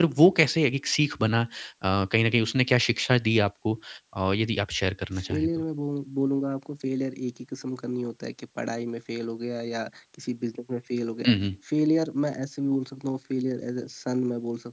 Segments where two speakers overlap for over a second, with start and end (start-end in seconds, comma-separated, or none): none